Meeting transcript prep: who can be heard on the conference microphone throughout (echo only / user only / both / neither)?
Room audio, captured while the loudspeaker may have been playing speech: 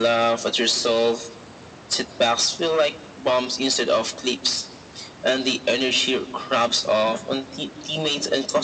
echo only